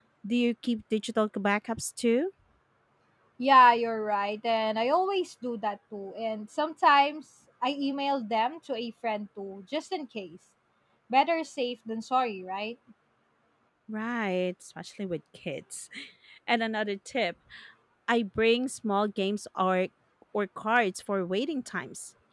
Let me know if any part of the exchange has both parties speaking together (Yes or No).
No